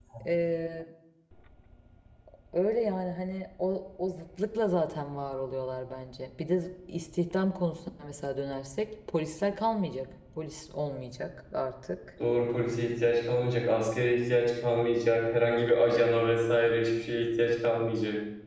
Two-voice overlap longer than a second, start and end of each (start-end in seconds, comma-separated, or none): none